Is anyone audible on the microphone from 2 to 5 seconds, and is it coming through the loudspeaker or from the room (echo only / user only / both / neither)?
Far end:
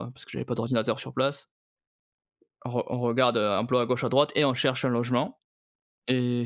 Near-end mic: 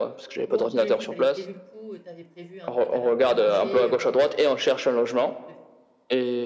both